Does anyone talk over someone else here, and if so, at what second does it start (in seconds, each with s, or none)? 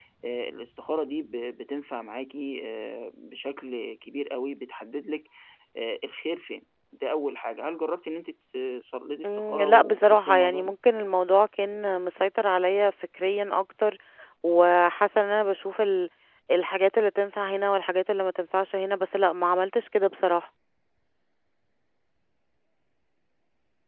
9.2 s